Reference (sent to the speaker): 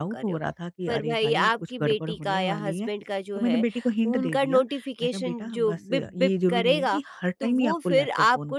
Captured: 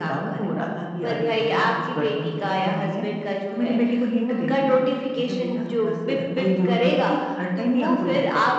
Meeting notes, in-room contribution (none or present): none